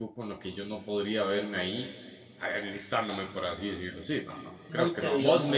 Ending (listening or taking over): listening